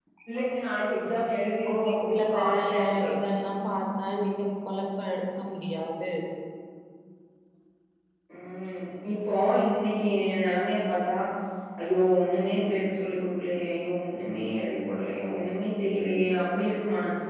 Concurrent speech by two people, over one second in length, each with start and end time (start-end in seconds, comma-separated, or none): 1.7-3.1